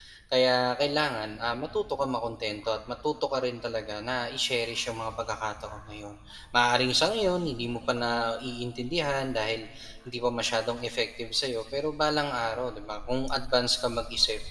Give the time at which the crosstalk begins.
none

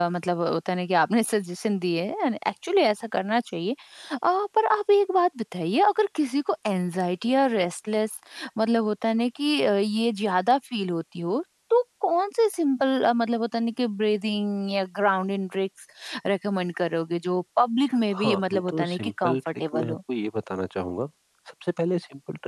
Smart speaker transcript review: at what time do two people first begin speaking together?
18.1 s

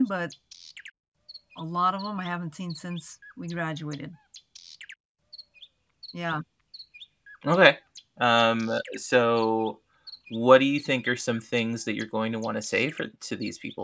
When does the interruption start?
none

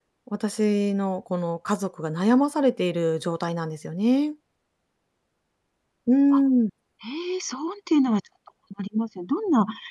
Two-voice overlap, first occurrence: none

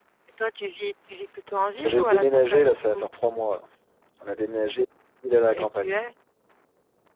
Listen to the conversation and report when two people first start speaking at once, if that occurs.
1.8 s

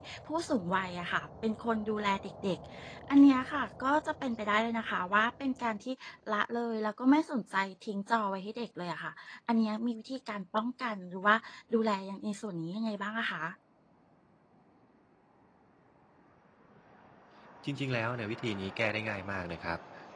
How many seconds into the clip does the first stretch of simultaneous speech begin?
none

